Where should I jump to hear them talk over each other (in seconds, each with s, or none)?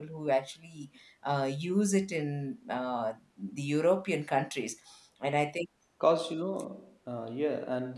none